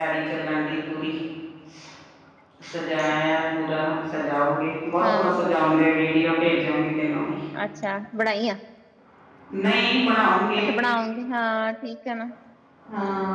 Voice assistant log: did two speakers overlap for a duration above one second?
No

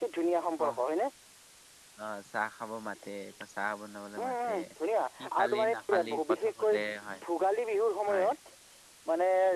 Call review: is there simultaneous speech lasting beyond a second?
Yes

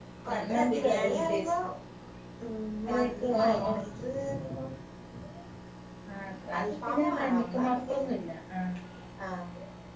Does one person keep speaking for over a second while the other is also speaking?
Yes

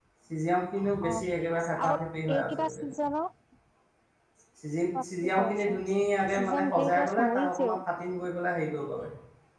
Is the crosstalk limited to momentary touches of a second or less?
No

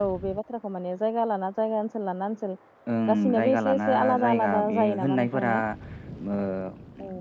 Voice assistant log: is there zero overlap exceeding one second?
No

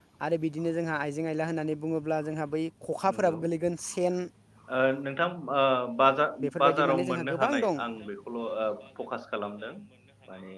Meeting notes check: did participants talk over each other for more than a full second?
Yes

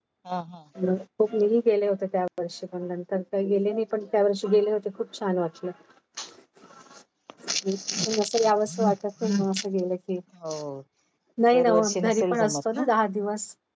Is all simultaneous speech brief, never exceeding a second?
No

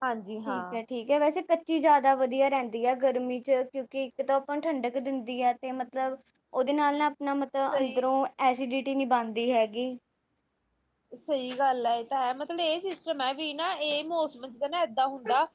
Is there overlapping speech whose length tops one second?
No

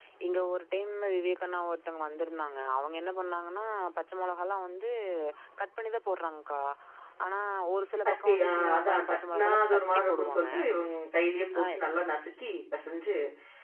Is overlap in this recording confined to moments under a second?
No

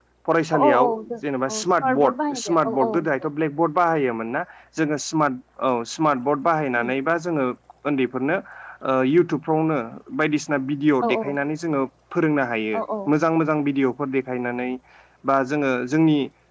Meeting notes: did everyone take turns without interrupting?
No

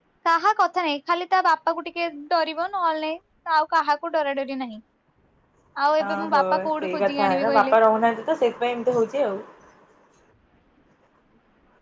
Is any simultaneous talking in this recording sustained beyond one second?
Yes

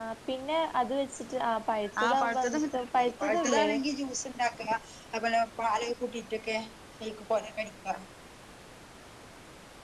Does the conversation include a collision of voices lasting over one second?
Yes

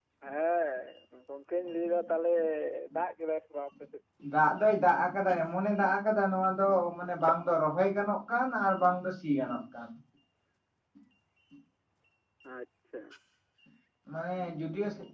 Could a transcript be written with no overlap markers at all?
Yes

